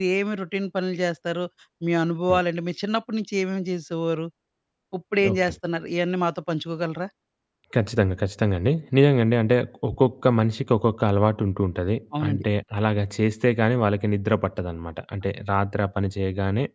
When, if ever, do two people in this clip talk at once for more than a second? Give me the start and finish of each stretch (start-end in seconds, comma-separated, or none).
none